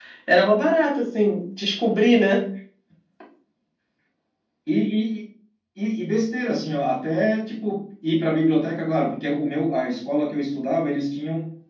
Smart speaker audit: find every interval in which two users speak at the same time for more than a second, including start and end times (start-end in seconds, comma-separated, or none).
none